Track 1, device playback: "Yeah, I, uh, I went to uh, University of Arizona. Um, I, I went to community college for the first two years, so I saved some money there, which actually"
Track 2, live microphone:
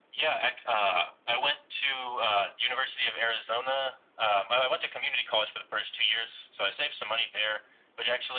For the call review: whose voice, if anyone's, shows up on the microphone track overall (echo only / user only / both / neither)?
echo only